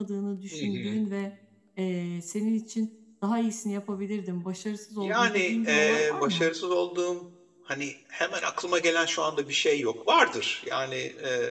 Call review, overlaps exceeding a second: present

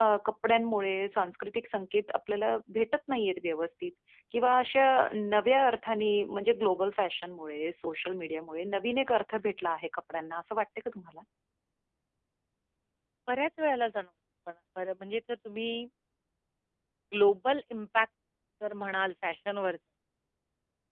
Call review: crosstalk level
none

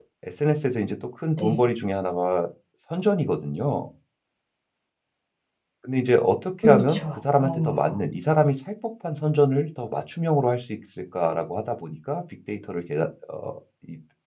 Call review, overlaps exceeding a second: present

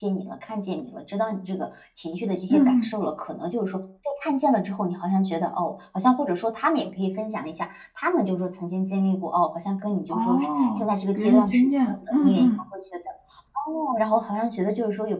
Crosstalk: present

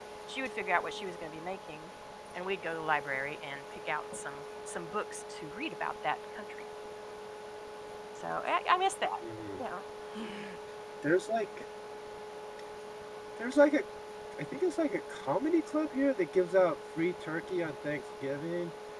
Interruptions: none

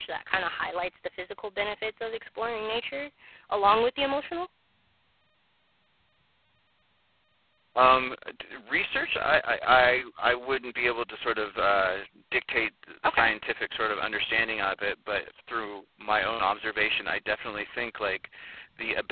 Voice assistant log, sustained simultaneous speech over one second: none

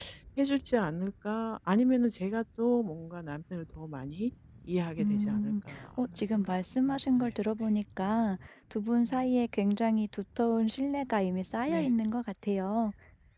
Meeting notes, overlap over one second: present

